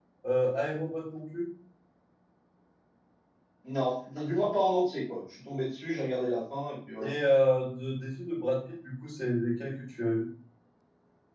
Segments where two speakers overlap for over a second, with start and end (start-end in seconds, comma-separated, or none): none